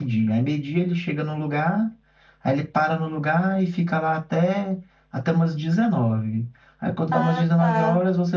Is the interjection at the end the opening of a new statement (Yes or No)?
No